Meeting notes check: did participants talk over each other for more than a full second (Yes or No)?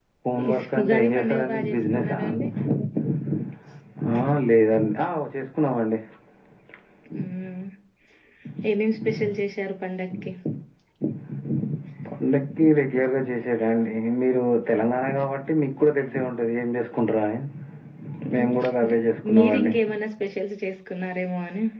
Yes